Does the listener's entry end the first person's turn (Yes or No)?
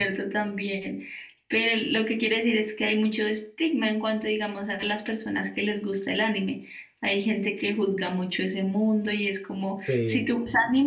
No